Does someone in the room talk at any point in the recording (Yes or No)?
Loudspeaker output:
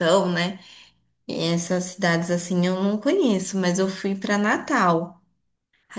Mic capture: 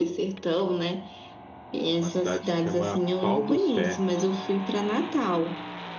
Yes